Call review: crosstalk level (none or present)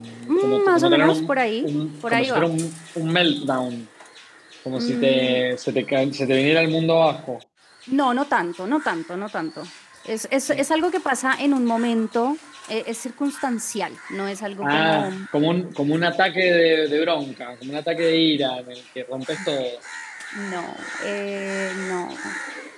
present